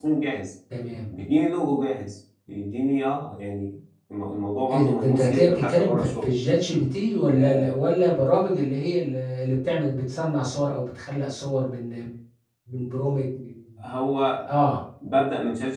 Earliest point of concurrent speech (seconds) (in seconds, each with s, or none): 4.7 s